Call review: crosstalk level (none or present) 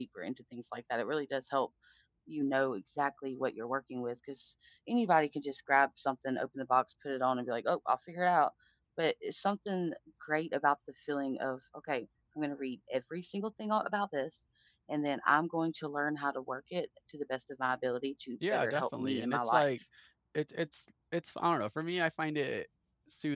present